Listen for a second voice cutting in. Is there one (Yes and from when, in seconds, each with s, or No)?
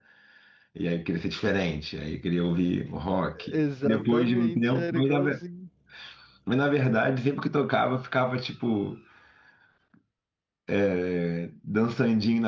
Yes, from 3.4 s